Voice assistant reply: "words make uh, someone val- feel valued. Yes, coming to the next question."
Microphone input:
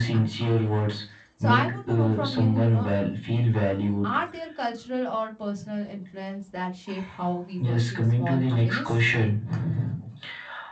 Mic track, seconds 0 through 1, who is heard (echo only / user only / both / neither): both